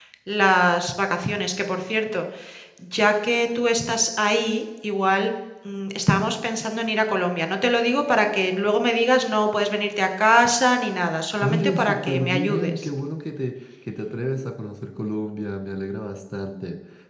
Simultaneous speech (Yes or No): Yes